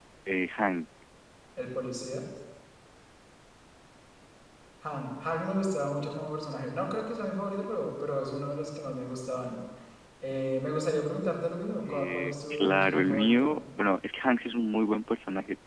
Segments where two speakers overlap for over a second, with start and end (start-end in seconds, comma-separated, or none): 11.8-13.5